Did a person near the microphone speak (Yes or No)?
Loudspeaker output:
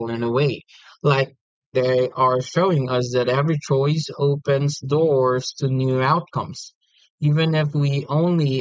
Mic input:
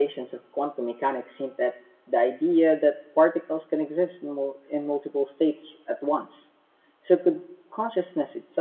Yes